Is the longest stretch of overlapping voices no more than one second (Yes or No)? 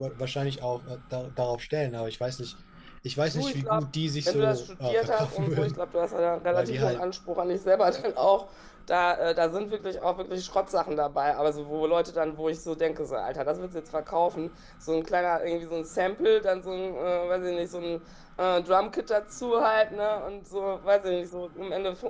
No